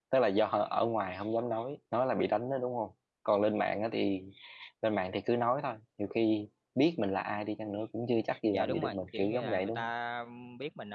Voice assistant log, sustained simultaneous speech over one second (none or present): present